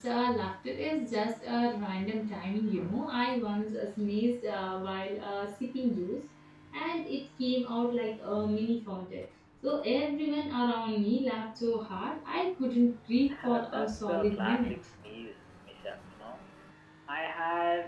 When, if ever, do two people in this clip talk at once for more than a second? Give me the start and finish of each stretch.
13.4-14.7

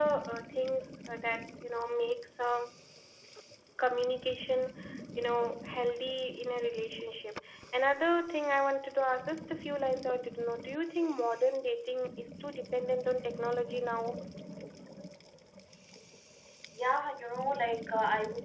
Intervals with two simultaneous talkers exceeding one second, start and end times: none

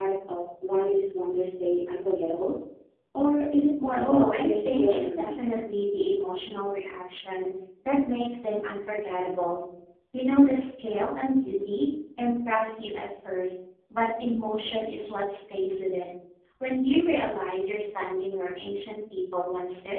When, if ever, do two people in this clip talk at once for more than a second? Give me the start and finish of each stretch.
3.9-5.4

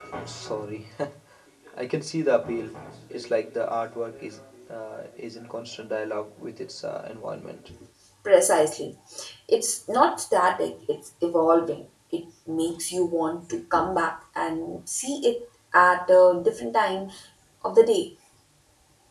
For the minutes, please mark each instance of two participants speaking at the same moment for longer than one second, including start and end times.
none

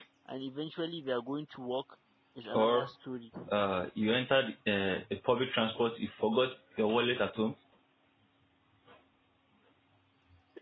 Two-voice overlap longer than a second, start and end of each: none

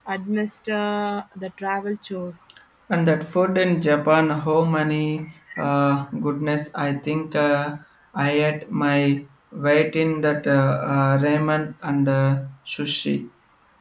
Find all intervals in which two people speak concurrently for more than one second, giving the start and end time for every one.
none

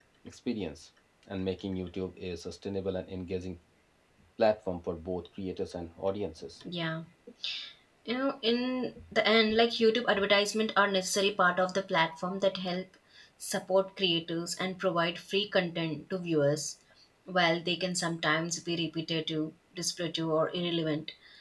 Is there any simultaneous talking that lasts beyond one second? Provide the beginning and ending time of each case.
none

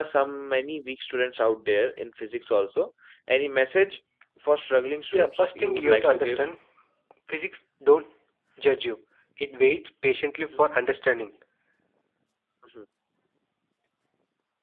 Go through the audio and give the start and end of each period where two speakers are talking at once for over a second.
5.1-6.4

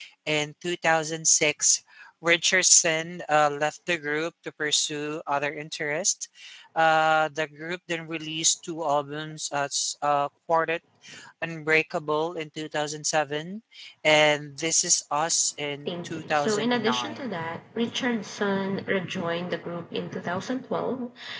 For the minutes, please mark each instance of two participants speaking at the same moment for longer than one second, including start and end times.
15.9-17.2

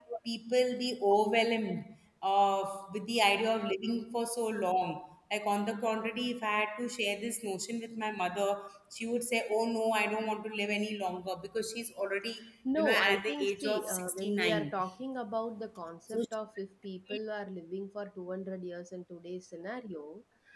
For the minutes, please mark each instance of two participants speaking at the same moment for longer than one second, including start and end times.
12.8-14.7

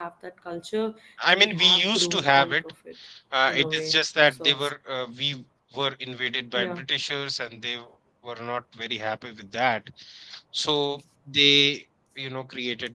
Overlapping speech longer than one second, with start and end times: 1.3-2.6, 3.5-4.7

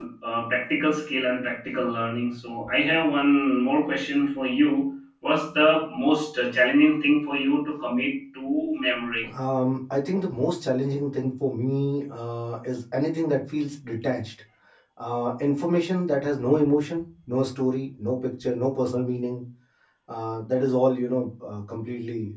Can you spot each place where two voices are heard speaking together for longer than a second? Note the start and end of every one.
none

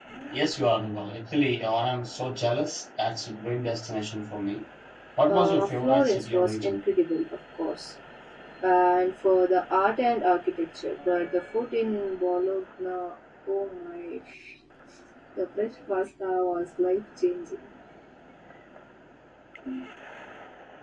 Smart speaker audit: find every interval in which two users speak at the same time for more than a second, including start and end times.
5.3-6.8

